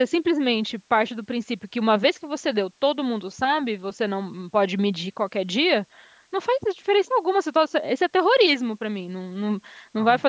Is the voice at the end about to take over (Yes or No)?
Yes